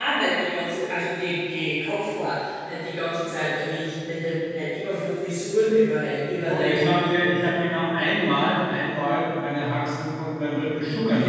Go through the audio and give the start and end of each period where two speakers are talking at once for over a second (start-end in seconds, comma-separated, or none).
none